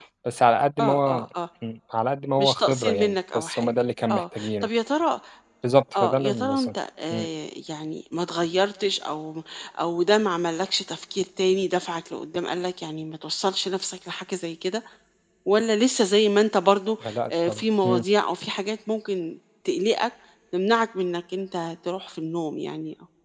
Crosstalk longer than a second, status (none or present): present